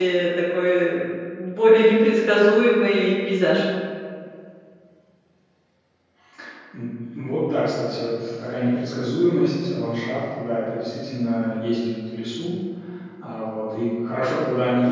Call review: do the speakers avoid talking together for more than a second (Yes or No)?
Yes